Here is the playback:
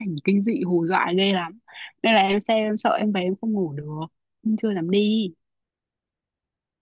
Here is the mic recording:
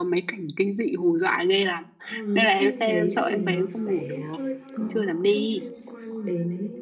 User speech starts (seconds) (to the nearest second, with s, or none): 2 s